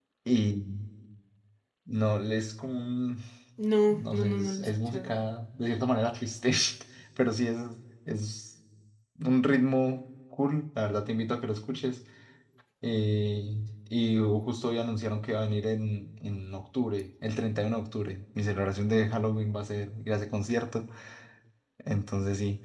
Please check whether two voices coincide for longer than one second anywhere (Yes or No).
Yes